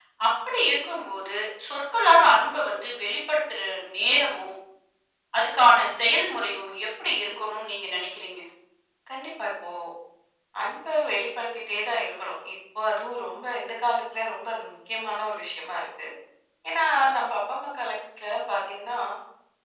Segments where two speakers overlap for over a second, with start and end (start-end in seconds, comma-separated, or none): none